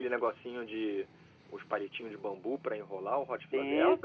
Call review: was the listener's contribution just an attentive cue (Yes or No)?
No